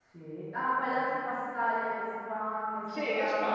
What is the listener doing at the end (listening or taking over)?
taking over